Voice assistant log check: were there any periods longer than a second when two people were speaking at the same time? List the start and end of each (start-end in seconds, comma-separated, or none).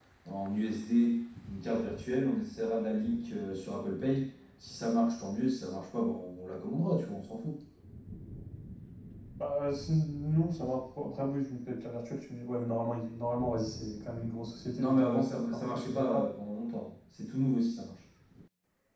14.7-16.2